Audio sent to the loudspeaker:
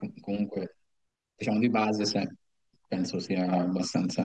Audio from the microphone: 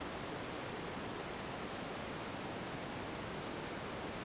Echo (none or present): none